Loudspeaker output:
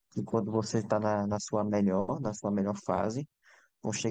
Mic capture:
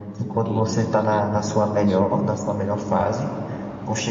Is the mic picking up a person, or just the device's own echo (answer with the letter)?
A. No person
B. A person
B